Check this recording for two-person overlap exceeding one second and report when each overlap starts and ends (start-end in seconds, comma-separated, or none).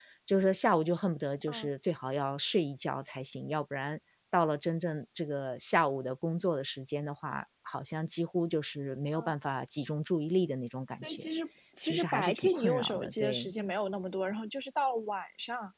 11.8-13.5